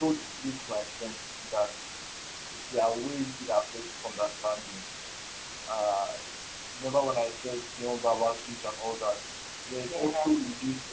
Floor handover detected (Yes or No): No